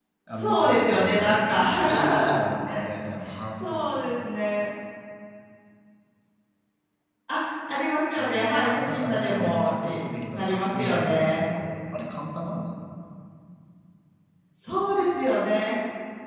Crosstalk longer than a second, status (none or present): present